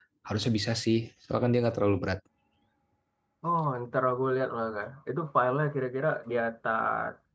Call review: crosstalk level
none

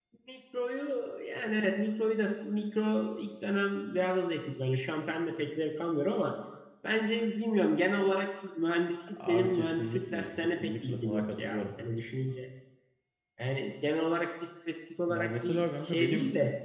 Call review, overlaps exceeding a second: present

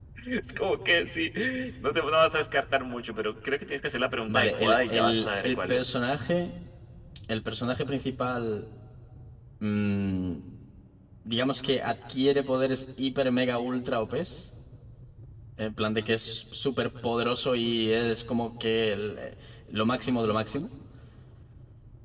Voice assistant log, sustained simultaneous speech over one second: present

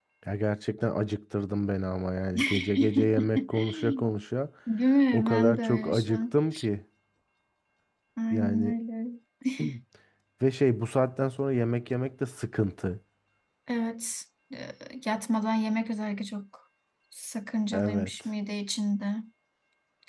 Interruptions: present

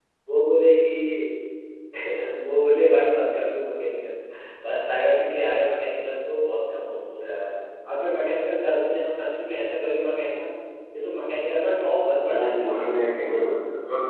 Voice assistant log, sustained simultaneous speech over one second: present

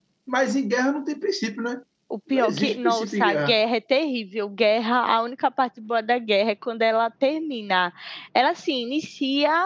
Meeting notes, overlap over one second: present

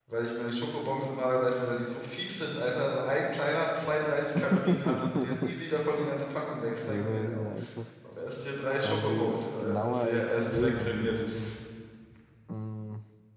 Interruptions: present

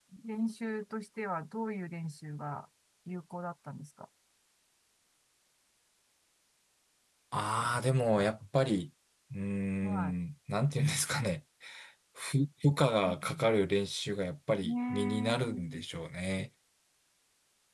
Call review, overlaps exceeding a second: present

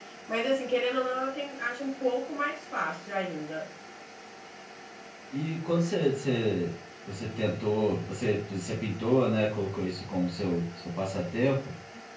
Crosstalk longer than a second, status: none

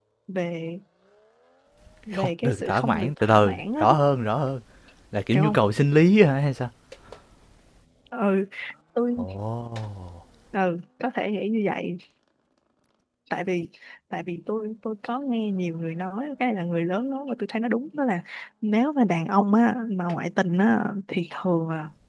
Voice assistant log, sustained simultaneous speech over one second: present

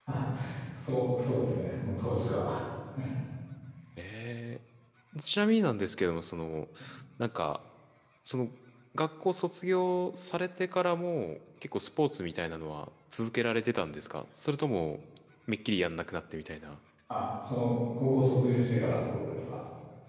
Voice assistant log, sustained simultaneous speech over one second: none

